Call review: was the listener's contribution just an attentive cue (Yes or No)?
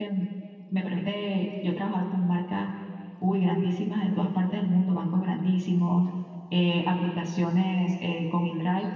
Yes